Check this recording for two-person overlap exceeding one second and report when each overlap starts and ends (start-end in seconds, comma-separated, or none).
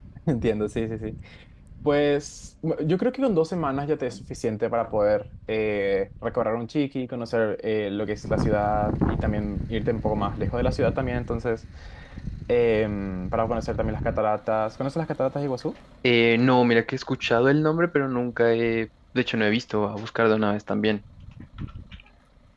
none